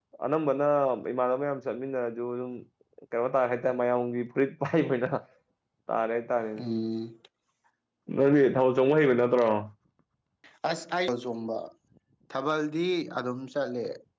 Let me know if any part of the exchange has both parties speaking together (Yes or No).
No